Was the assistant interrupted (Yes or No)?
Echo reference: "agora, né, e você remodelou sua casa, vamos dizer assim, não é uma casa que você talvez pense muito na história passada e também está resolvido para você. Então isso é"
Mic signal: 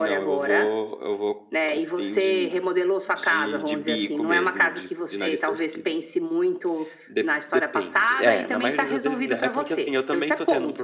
Yes